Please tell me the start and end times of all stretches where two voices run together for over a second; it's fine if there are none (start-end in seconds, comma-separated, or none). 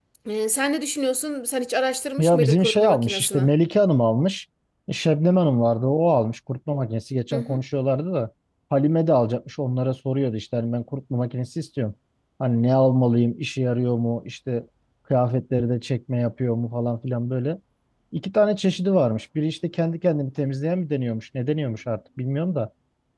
2.2-3.4